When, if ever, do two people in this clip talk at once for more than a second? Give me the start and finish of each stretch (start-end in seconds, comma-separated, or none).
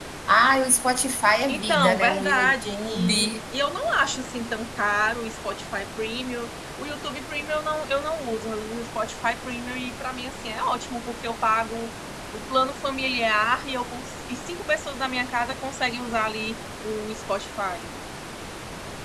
1.5-3.3